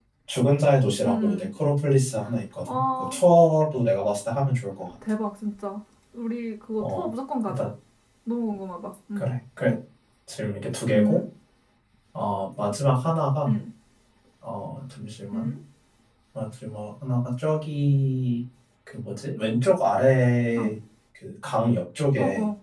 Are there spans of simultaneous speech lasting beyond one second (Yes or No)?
No